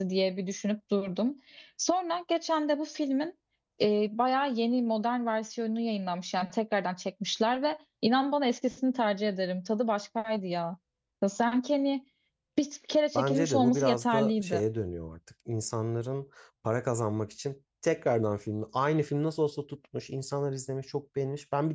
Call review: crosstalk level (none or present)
present